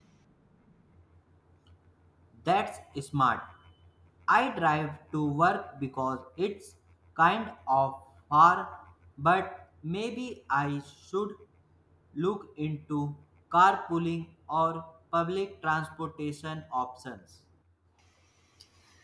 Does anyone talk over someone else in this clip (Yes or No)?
No